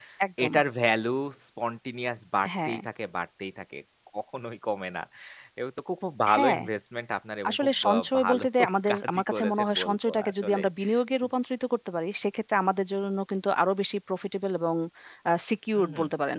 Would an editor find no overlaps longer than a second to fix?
No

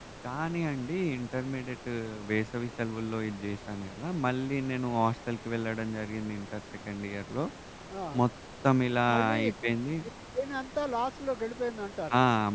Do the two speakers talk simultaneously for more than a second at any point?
No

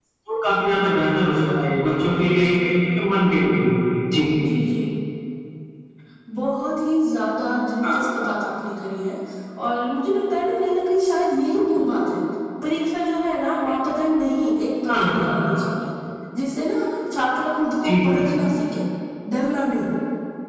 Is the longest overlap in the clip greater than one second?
No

